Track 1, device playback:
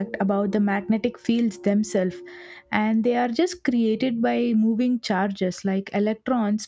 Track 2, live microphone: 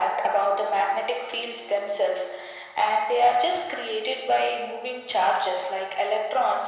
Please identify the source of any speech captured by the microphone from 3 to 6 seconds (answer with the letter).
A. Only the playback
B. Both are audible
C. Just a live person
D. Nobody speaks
A